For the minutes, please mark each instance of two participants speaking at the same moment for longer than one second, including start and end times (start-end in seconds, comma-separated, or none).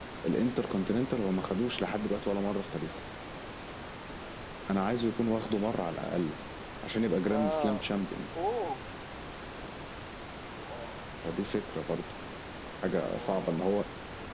none